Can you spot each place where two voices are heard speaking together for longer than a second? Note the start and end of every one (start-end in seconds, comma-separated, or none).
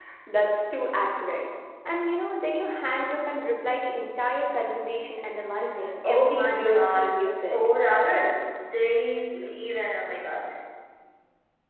6.0-7.6